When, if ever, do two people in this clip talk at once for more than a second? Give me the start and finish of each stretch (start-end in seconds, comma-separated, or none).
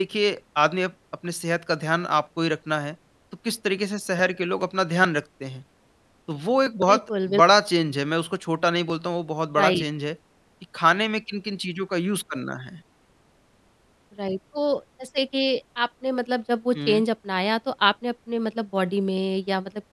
none